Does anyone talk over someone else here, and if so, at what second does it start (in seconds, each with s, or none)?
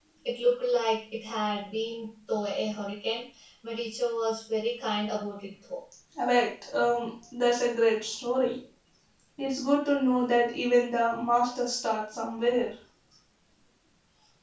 none